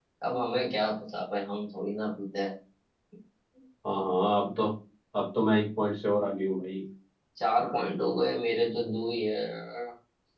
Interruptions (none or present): none